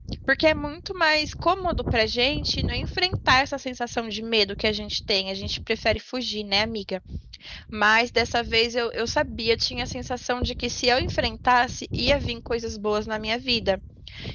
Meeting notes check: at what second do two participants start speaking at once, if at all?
none

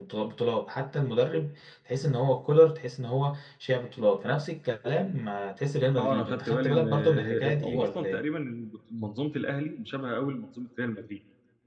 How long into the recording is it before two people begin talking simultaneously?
6 s

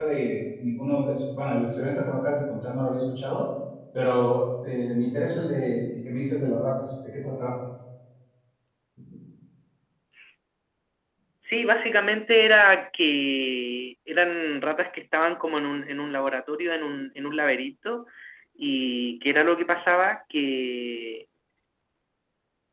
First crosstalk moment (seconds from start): none

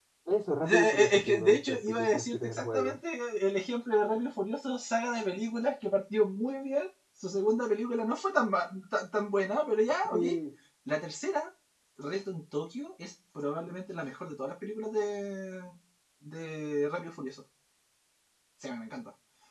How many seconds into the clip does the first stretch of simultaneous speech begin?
1 s

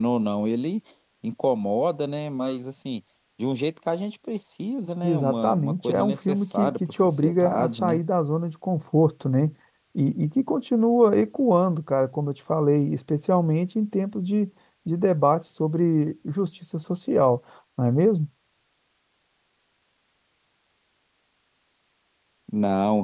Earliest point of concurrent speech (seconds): 5 s

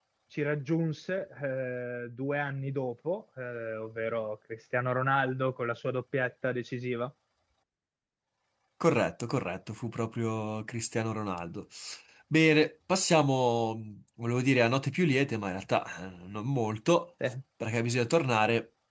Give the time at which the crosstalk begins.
none

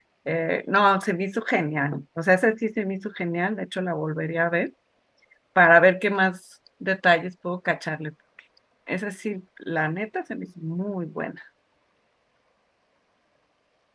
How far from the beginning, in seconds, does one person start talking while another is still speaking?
none

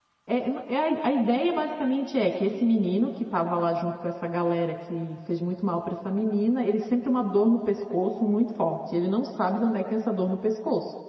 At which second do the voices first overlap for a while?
none

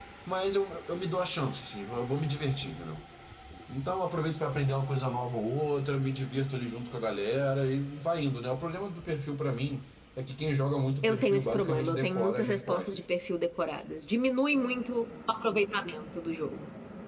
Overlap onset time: 11 s

